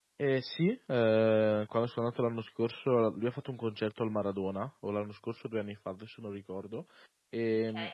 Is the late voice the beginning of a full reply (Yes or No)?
No